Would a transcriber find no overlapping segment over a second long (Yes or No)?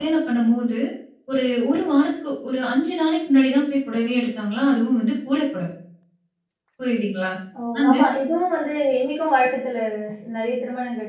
Yes